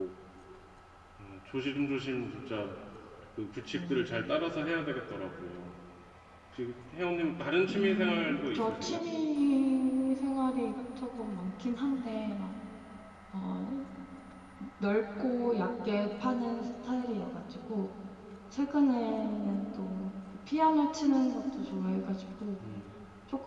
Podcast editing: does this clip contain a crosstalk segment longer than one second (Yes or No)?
Yes